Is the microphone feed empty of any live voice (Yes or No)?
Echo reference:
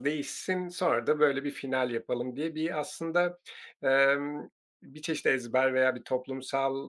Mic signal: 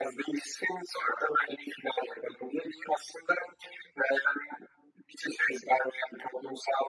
Yes